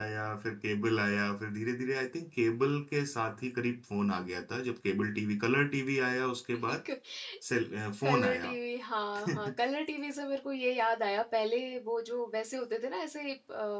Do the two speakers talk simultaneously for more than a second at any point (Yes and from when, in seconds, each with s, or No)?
No